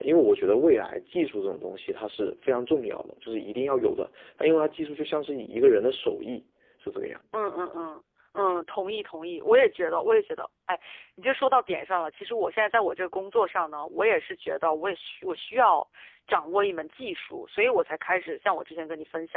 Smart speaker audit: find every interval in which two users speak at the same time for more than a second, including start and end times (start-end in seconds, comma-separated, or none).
none